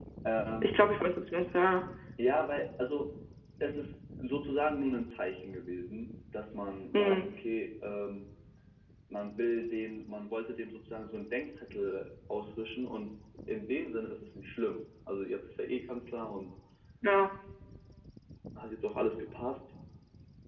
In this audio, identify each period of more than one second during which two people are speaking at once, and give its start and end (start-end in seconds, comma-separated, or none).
none